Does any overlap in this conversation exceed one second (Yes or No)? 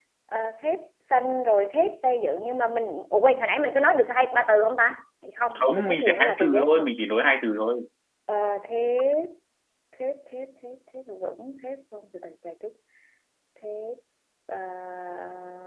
Yes